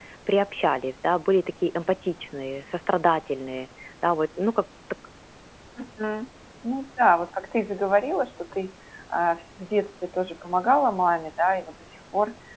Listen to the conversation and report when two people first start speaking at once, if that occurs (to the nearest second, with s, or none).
none